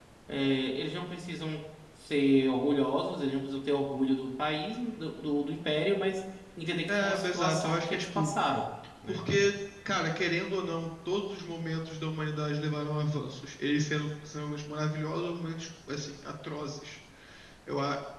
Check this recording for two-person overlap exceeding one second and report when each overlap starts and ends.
6.9-8.3

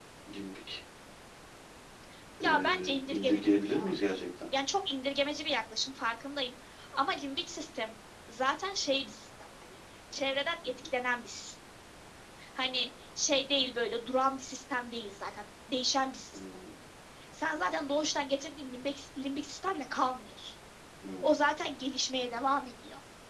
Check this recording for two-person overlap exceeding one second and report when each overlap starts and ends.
2.4-3.9

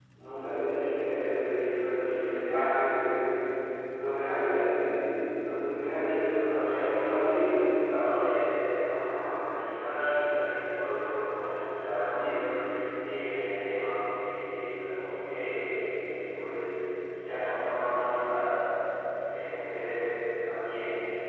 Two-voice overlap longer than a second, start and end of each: 6.0-7.5

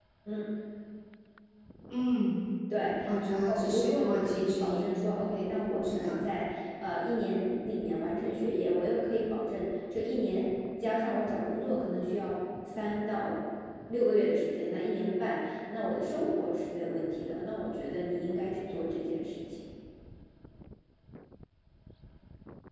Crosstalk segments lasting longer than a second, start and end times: 3.5-4.9

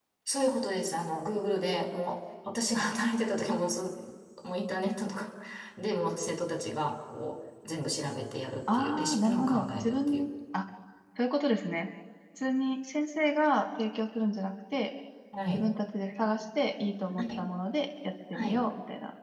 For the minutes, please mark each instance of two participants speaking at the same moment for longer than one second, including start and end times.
8.7-10.3

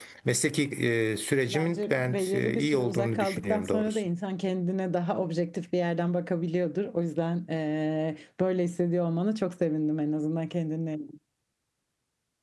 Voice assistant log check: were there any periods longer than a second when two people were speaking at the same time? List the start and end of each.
1.5-4.0

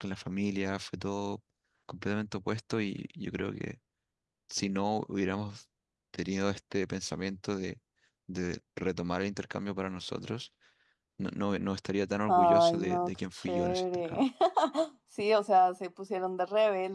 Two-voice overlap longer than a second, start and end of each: 12.3-14.2

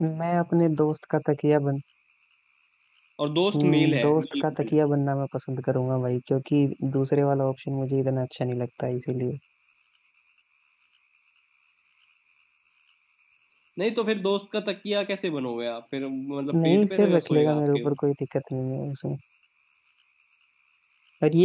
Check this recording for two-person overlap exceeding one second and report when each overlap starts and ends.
3.5-4.8, 16.5-18.0

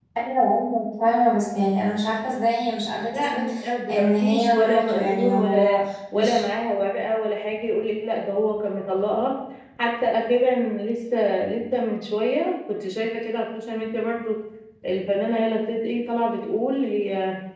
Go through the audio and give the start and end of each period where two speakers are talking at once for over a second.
3.9-5.8

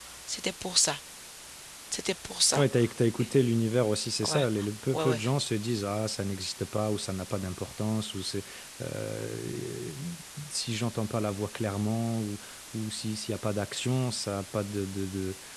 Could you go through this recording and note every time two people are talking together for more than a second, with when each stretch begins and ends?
none

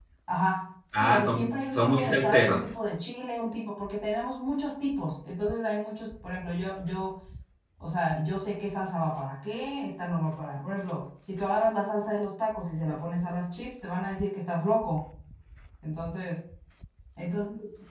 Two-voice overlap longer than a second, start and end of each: 0.9-2.6

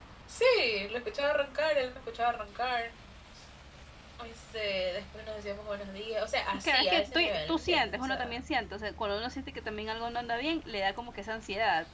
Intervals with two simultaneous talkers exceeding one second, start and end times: 6.6-8.4

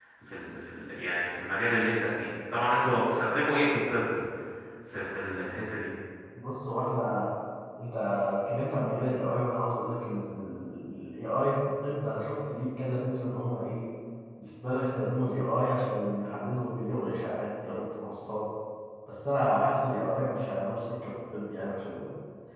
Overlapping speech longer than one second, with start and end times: none

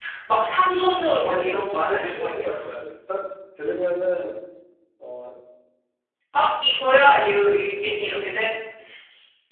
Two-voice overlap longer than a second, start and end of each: 1.2-2.6

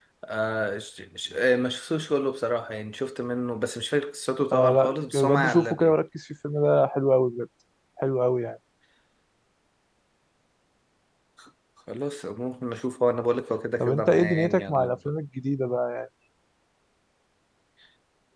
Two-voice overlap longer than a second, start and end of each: 4.5-6.0, 13.8-15.1

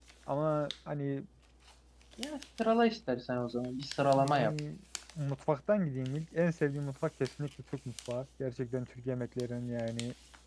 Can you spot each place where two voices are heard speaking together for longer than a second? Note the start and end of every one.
none

